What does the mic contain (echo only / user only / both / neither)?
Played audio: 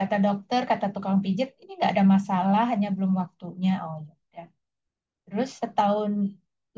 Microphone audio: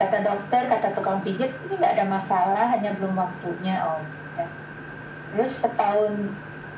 echo only